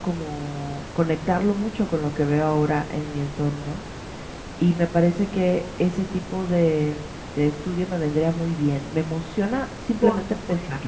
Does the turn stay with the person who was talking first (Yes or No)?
No